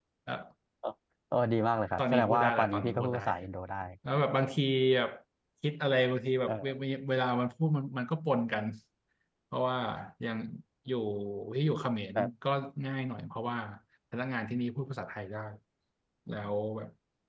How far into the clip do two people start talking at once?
2.0 s

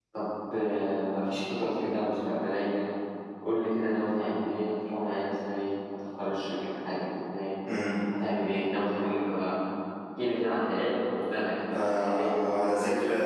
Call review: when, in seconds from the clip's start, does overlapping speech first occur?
11.7 s

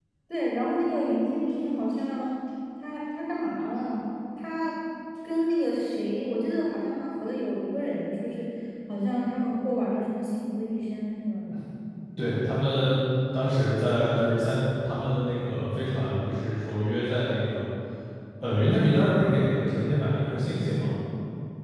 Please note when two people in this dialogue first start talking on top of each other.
none

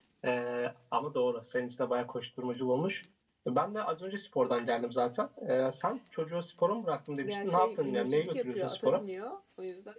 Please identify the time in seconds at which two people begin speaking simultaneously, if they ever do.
7.2 s

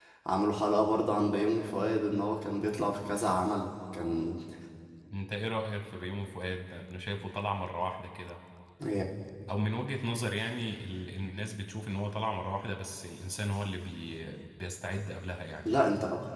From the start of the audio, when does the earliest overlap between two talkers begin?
none

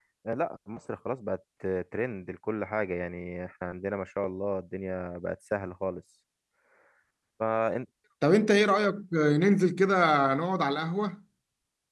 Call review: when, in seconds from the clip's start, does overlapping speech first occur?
none

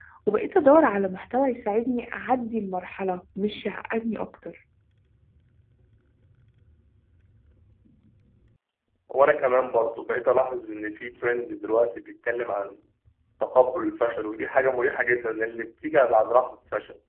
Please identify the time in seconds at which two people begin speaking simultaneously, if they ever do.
none

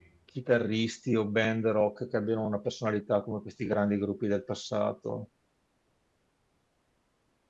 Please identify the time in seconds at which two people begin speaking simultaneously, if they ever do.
none

